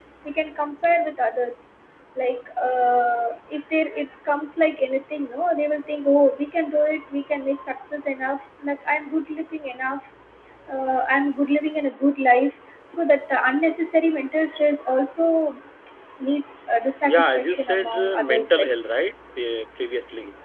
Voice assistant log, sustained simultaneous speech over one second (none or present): present